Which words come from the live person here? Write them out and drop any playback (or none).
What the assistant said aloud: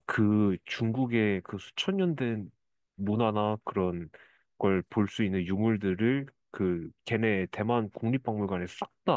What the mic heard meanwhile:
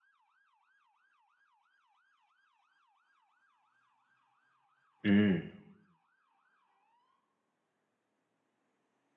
음.